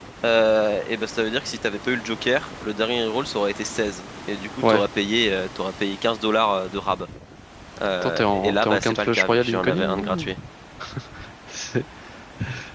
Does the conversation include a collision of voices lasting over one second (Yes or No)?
Yes